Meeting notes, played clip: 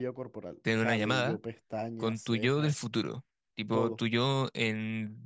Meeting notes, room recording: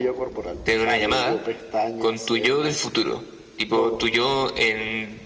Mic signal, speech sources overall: echo only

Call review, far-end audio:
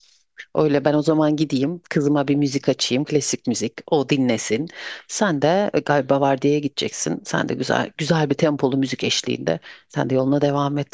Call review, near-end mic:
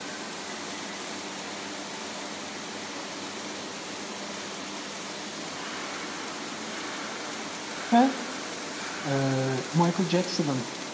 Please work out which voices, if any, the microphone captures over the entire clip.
user only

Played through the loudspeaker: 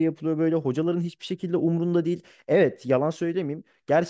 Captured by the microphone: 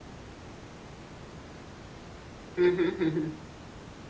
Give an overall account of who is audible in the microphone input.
user only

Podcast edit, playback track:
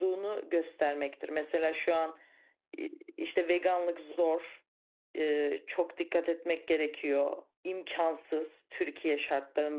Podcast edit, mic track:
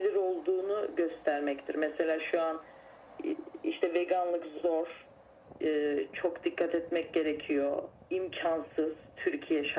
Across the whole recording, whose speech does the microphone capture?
echo only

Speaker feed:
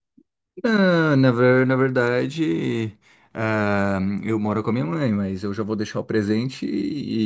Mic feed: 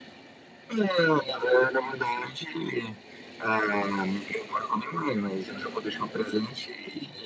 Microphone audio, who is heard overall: echo only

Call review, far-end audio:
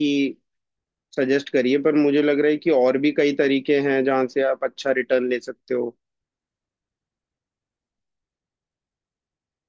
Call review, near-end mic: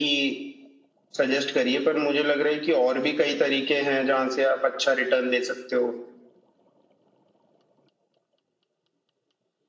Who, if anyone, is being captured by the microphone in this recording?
echo only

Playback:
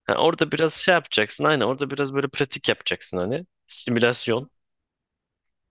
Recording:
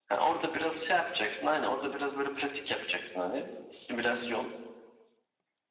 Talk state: echo only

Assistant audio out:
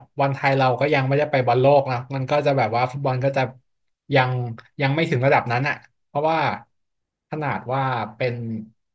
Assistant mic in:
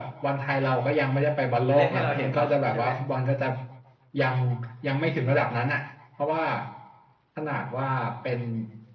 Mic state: both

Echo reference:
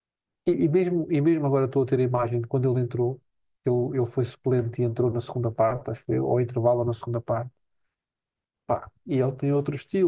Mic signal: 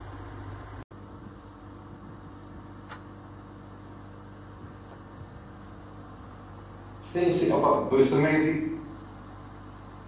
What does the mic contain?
user only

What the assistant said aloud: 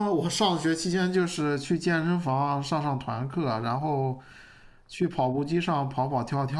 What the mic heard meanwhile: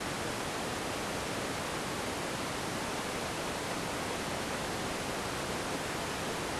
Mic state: neither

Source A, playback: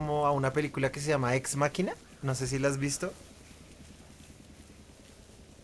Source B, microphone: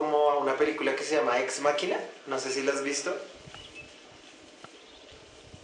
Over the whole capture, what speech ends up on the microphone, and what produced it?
echo only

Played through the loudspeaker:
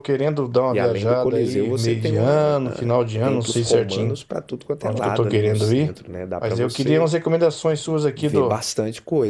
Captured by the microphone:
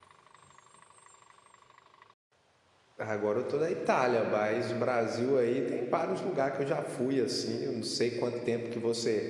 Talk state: user only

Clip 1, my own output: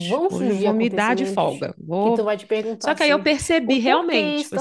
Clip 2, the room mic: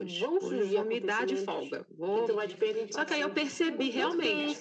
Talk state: both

